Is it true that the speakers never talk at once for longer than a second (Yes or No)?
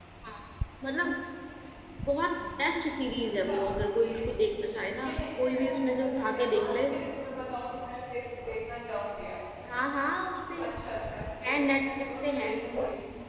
No